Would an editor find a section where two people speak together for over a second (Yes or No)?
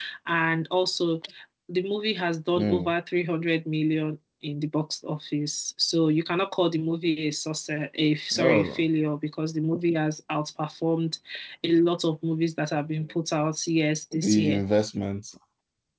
No